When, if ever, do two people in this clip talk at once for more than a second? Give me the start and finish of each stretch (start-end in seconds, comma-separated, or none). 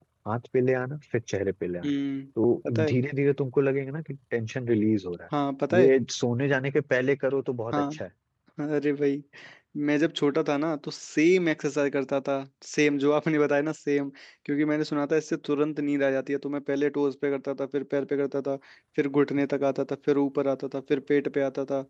none